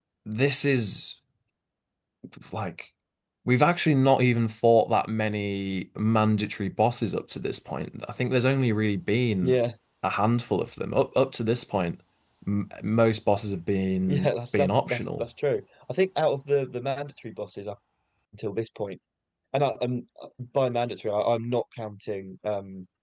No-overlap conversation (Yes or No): No